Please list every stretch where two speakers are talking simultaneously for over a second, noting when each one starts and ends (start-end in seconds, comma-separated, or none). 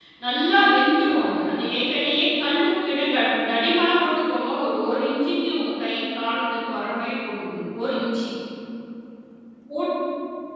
none